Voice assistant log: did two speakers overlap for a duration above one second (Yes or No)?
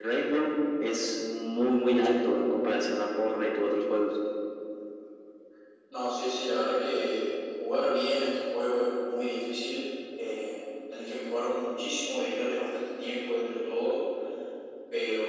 No